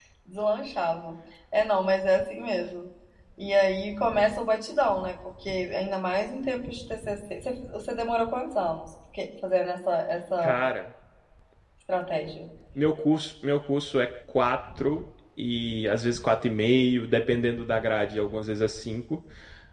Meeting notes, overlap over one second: none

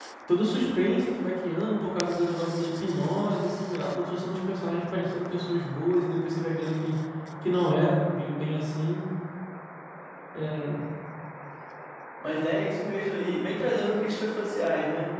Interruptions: none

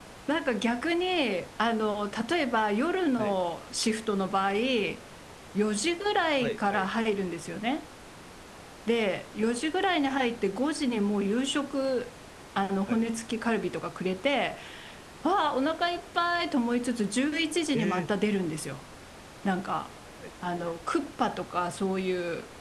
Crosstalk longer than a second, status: none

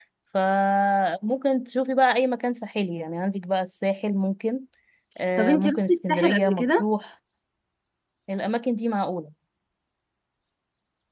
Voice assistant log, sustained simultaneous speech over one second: present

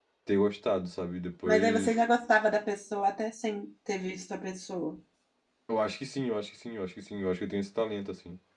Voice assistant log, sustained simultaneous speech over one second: none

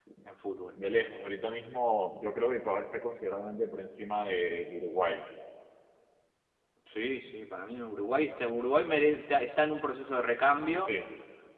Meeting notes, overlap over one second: none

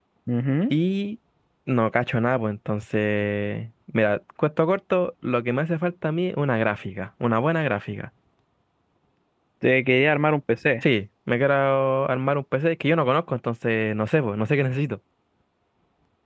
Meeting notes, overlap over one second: none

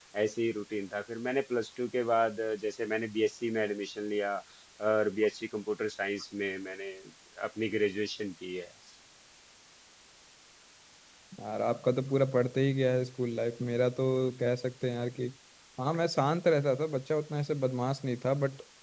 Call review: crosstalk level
none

